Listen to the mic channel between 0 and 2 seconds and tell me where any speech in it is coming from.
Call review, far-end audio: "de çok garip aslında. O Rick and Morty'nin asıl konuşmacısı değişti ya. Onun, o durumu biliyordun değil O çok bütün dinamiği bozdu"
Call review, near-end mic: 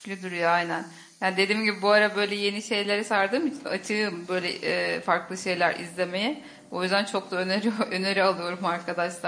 user only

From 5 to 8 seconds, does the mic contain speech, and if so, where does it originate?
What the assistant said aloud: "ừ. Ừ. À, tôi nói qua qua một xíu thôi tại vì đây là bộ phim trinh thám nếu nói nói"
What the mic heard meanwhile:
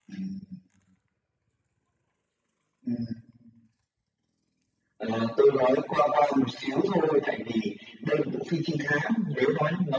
echo only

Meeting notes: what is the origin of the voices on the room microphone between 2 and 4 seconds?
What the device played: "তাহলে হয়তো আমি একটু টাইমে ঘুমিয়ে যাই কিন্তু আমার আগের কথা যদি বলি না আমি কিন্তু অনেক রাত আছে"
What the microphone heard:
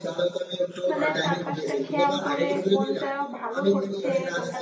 both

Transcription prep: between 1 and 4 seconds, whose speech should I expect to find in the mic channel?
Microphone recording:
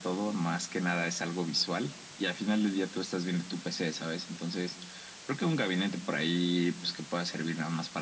echo only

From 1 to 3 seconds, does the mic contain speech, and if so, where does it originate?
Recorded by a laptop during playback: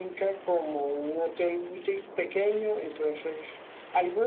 echo only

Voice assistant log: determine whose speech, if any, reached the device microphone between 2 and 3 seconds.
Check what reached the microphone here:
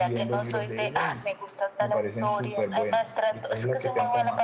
both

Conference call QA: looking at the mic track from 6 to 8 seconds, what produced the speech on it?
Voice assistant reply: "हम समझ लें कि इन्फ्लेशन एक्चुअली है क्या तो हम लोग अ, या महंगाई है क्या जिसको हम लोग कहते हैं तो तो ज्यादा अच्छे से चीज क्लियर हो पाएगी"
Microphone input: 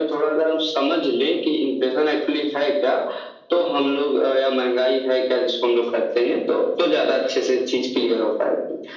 echo only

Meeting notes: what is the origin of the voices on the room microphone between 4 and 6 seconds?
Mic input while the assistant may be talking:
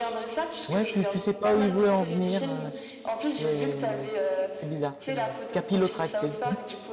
both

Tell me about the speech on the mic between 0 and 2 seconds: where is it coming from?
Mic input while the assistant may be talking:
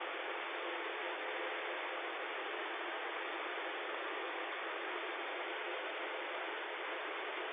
neither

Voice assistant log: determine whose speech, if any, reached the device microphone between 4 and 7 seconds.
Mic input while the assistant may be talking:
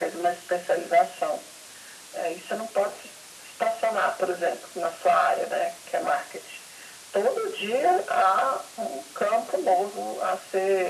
echo only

